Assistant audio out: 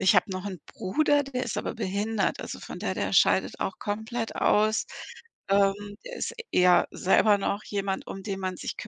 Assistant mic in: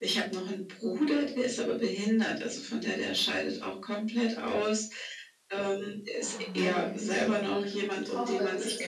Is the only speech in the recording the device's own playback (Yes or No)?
No